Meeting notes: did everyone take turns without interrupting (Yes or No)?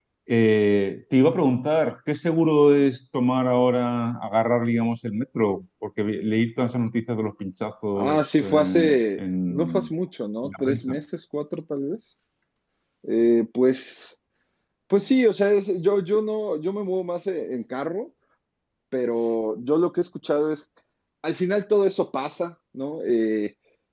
No